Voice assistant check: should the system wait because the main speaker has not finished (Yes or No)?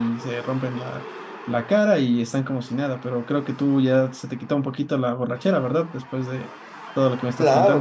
No